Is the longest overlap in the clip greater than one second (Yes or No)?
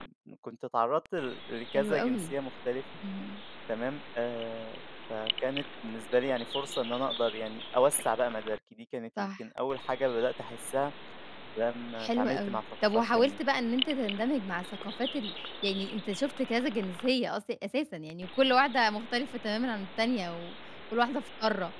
Yes